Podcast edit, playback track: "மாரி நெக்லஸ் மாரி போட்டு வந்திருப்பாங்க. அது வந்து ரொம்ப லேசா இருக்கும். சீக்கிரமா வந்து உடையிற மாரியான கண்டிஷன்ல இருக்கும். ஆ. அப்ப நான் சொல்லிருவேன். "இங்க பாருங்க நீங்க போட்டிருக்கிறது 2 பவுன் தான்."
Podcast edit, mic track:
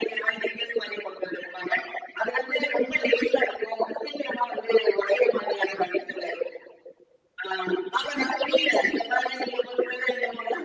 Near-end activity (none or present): none